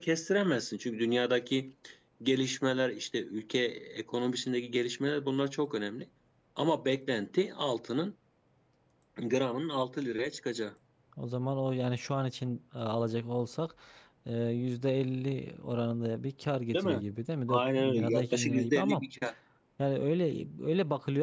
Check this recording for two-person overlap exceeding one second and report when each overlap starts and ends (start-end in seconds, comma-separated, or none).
17.5-19.0